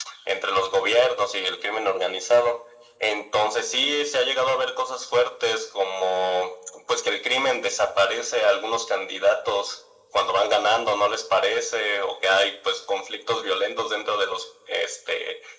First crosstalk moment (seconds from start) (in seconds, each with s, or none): none